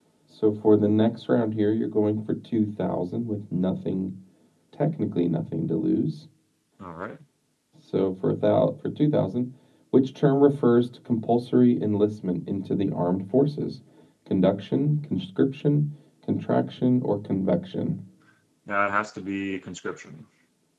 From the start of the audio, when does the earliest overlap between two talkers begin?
none

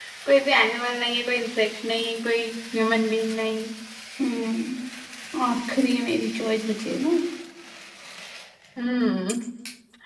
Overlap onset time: none

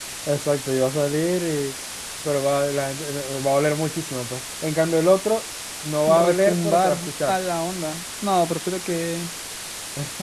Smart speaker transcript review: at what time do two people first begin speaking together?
6.1 s

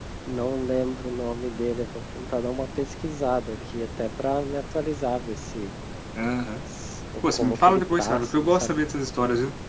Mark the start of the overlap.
7.3 s

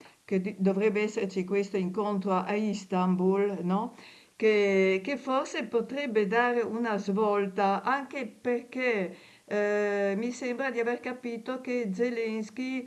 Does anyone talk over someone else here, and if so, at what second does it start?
none

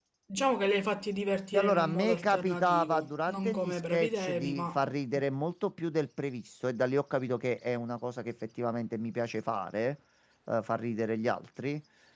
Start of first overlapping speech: 1.5 s

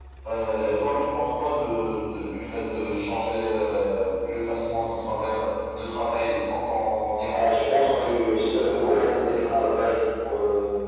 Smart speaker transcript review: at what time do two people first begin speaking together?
7.3 s

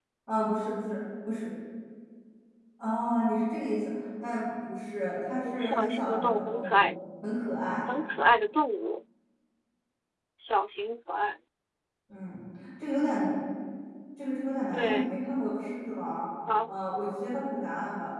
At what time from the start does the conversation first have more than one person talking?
5.4 s

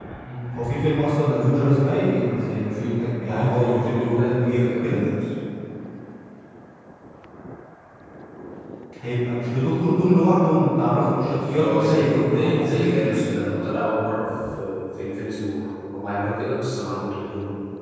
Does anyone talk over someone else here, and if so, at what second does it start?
3.3 s

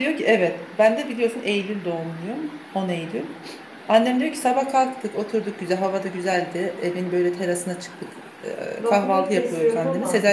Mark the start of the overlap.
8.8 s

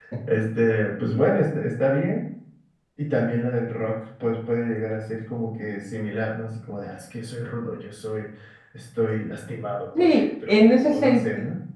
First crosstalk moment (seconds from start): 10.0 s

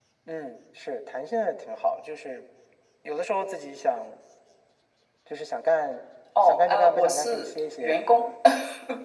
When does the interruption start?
6.4 s

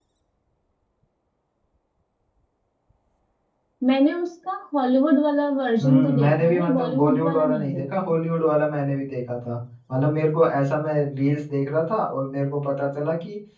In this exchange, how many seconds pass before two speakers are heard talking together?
5.8 s

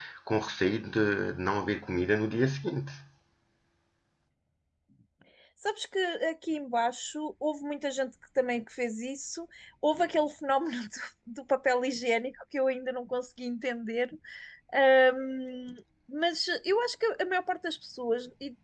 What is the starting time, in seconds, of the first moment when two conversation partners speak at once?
none

